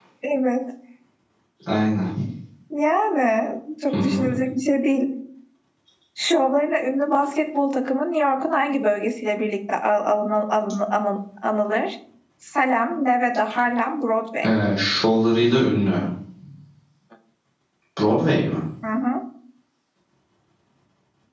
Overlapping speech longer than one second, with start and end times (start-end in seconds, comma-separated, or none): none